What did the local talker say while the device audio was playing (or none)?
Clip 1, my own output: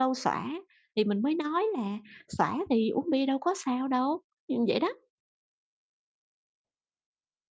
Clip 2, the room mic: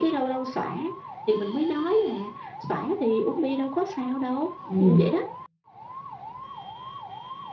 Ừm,